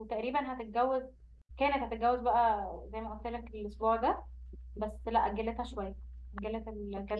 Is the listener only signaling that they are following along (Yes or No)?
No